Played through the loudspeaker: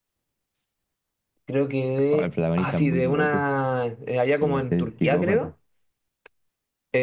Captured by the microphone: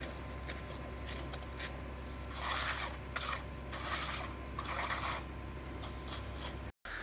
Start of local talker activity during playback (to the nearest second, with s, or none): none